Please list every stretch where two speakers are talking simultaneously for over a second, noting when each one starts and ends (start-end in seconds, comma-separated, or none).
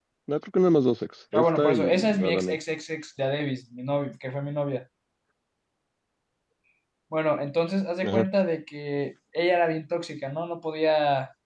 1.3-2.6